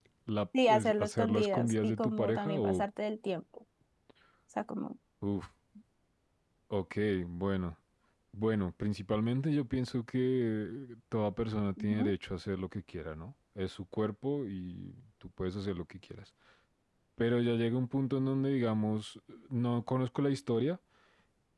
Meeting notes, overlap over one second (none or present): present